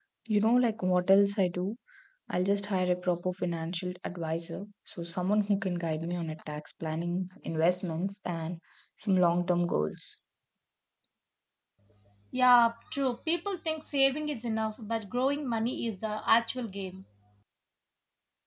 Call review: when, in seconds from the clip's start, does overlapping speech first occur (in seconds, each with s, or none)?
none